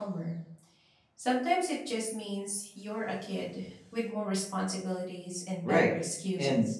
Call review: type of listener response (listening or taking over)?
taking over